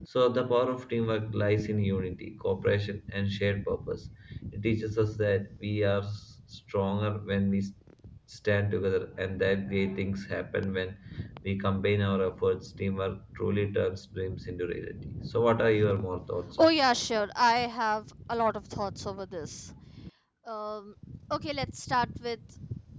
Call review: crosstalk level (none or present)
none